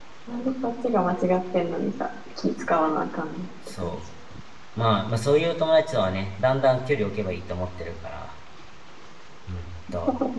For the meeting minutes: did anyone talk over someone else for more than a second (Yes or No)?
No